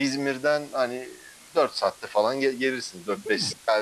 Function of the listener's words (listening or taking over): listening